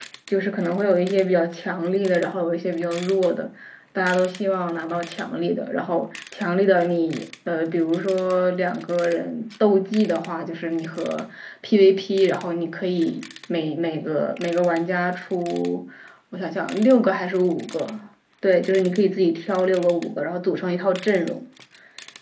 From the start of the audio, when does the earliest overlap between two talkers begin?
none

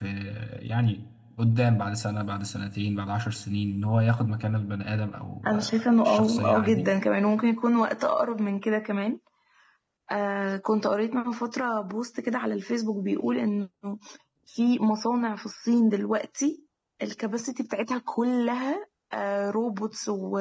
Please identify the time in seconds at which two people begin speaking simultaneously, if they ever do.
5.4 s

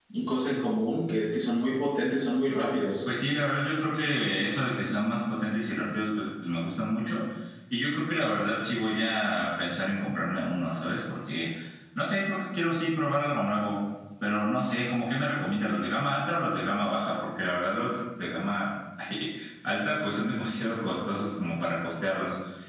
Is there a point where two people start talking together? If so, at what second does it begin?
none

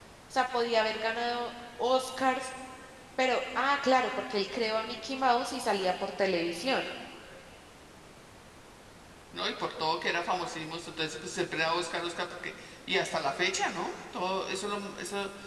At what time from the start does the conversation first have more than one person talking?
none

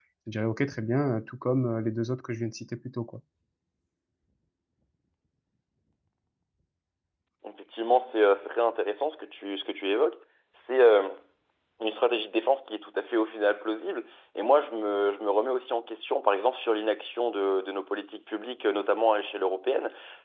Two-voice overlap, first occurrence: none

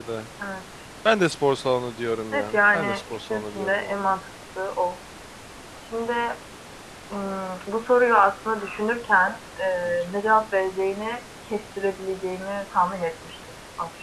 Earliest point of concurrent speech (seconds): 2.3 s

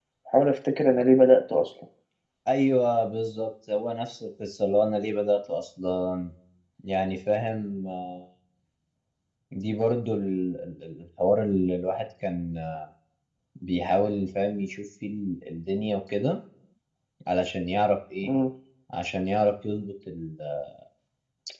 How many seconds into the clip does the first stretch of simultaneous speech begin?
none

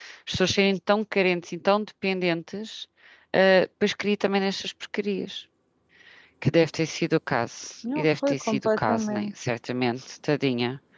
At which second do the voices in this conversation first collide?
7.8 s

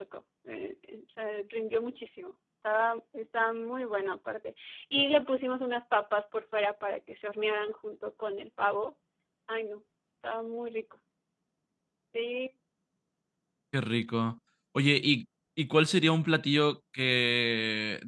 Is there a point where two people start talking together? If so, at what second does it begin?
none

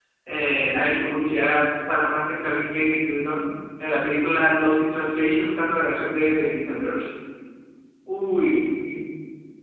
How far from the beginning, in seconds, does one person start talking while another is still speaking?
none

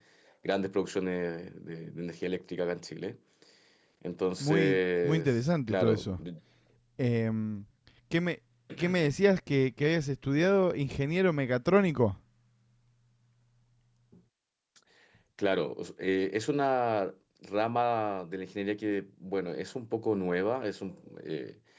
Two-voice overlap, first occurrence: 4.4 s

